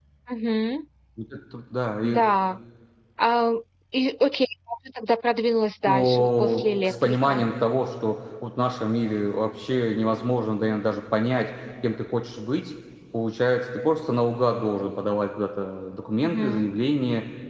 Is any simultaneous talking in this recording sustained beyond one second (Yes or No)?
Yes